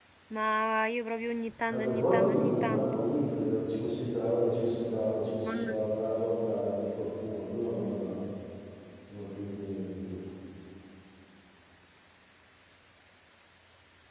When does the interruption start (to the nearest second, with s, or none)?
2 s